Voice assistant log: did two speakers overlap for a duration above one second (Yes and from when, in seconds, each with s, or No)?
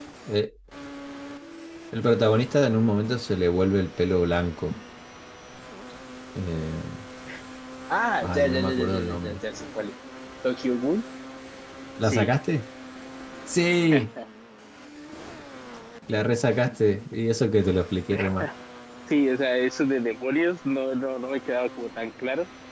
Yes, from 8.2 s